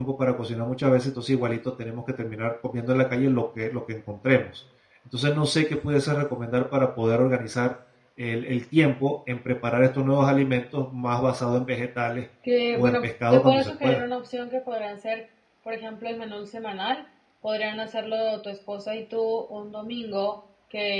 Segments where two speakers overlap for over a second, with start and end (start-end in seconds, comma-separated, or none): 12.7-14.0